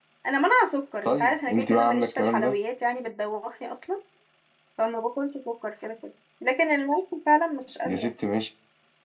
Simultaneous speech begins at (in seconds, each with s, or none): 1.0 s